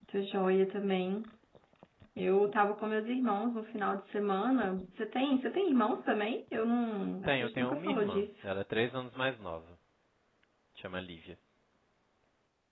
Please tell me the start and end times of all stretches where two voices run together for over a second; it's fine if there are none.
7.2-8.5

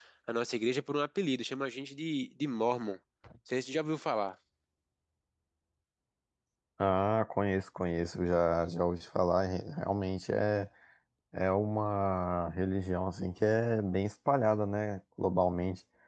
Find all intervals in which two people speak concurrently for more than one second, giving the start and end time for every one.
none

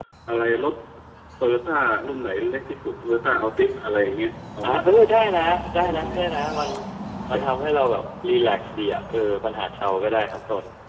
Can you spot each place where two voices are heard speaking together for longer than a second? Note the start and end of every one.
none

